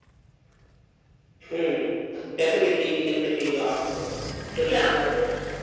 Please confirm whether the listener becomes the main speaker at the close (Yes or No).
Yes